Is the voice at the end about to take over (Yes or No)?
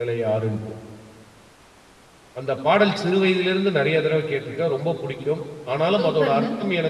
No